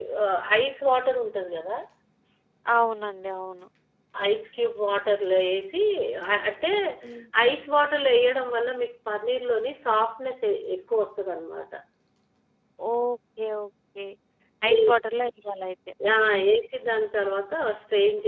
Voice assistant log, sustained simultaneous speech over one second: none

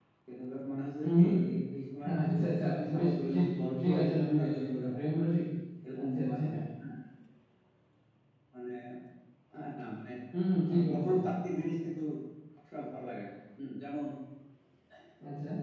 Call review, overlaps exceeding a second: present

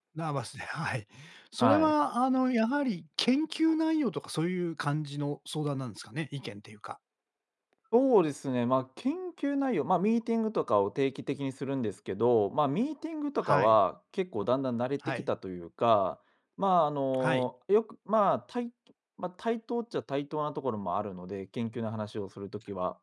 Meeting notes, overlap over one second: none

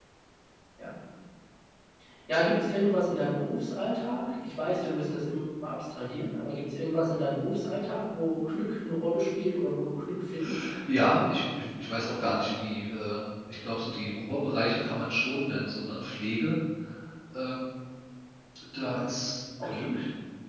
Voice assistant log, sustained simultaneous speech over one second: none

